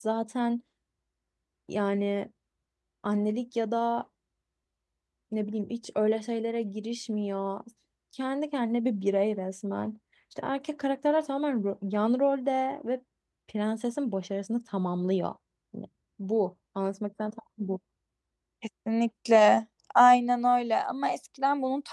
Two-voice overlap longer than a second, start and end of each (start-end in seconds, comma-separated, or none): none